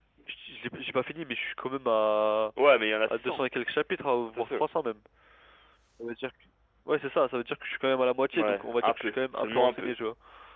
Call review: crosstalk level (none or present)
present